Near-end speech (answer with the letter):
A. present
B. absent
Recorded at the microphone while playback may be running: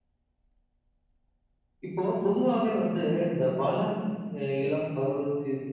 B